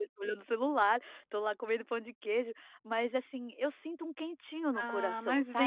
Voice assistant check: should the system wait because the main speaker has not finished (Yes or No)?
No